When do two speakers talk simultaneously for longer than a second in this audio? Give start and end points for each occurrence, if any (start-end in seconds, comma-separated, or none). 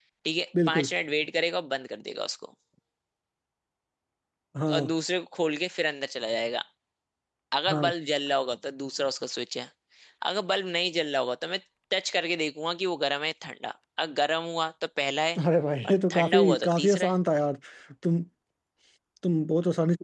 15.8-17.2